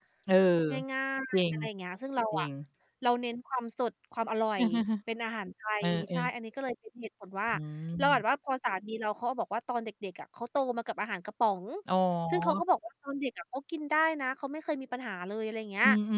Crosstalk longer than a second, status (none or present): none